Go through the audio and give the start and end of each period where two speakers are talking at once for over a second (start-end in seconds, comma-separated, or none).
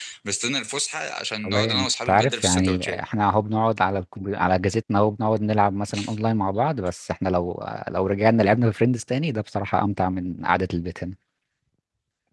1.4-3.0